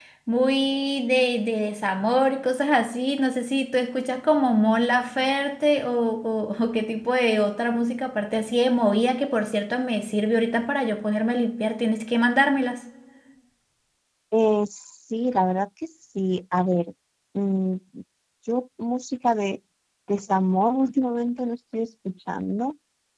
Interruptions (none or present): none